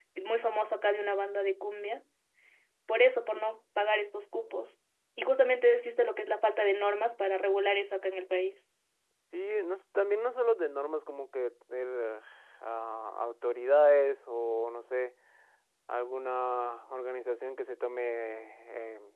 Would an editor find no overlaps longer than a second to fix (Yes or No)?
Yes